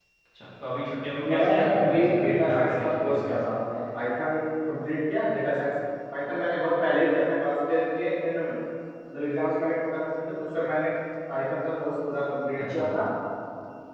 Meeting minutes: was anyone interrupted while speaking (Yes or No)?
Yes